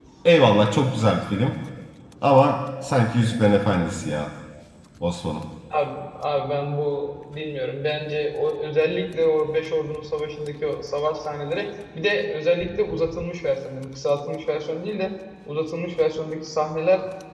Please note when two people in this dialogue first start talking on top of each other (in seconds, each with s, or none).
none